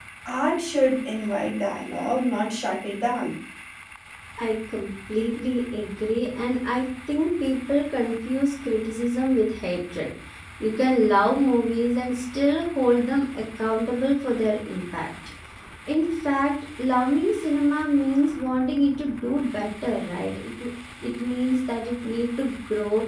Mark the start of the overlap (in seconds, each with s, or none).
none